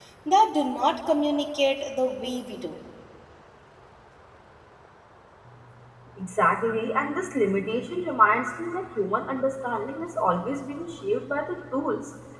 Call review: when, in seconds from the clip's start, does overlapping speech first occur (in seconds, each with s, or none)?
none